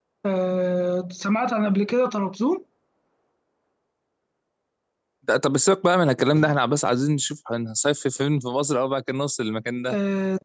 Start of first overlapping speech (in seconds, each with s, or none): none